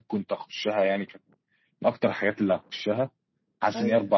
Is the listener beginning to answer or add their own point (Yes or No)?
No